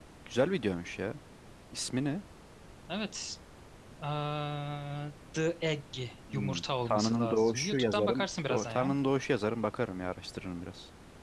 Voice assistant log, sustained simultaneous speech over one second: present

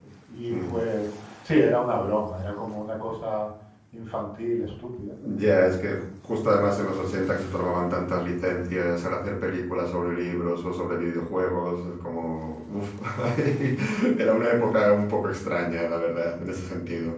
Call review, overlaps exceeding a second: none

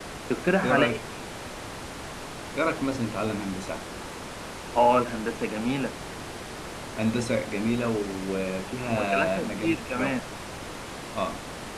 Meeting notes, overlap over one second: present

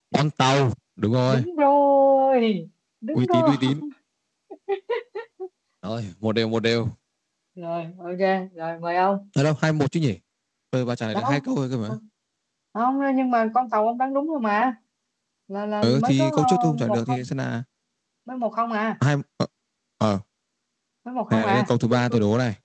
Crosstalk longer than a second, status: present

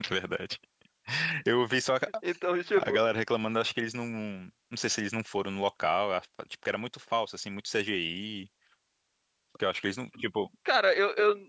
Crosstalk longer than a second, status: none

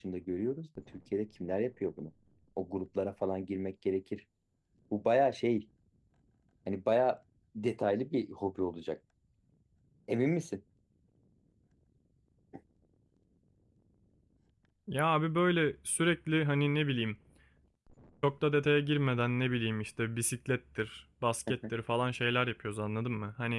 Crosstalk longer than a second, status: none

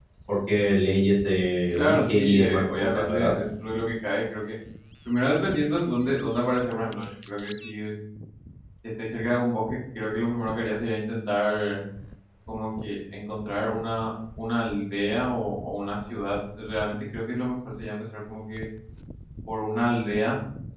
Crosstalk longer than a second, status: present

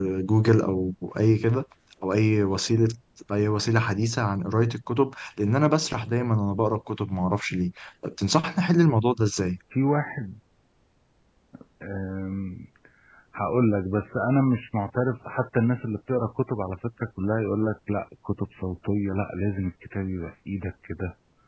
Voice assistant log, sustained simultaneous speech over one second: none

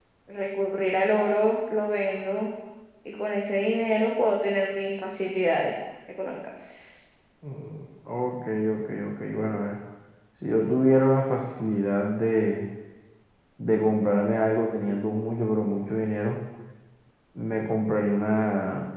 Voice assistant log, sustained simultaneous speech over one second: none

